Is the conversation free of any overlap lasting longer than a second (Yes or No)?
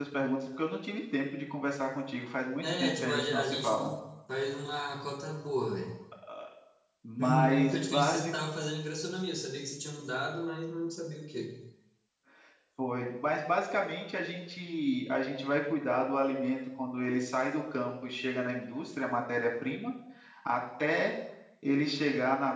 No